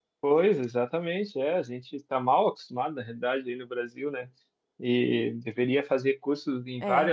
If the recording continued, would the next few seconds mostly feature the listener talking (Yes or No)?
No